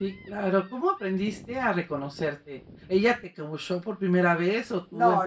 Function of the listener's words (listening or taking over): taking over